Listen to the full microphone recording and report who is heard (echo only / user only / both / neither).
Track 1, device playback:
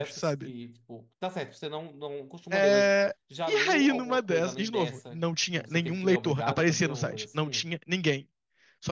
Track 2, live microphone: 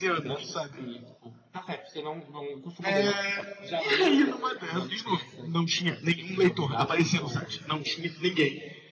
echo only